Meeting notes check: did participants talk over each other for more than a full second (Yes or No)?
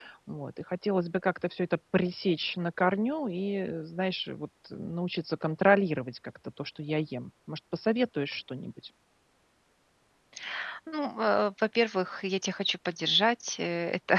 No